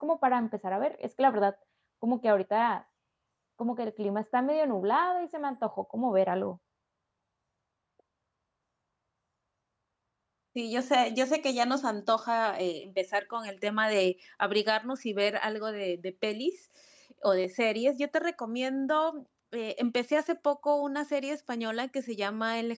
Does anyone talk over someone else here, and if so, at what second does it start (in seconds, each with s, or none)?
none